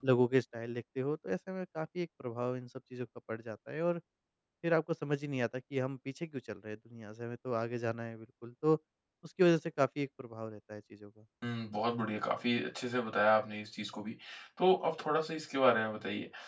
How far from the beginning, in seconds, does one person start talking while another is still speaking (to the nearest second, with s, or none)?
none